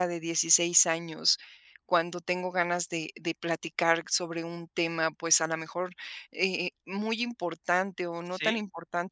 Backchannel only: Yes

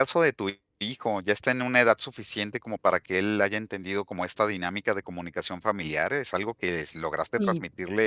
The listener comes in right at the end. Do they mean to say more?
No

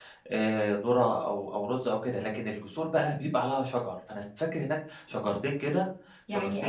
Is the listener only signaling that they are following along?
No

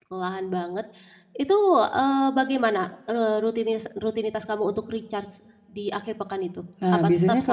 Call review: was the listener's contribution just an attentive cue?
No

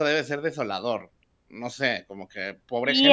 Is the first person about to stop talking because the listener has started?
Yes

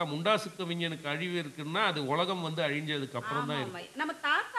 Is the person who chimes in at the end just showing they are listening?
No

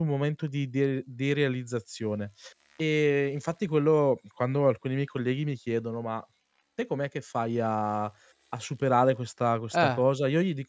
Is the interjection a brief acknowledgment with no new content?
Yes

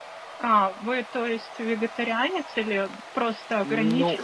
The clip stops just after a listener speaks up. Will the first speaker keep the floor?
No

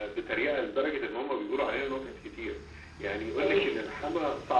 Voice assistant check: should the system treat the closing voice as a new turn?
No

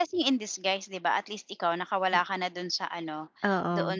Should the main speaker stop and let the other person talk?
No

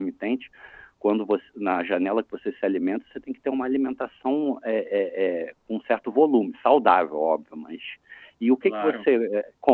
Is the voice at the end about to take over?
No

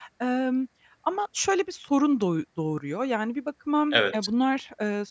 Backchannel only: Yes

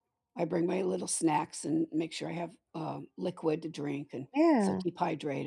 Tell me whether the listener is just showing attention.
Yes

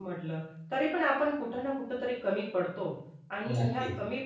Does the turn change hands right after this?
No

